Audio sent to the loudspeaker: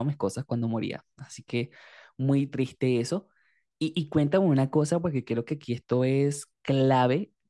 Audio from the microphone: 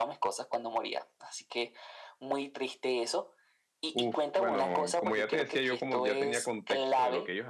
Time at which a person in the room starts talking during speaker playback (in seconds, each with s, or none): 3.9 s